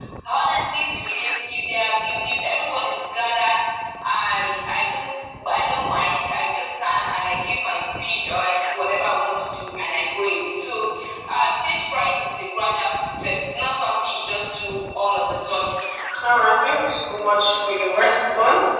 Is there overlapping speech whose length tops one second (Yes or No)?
No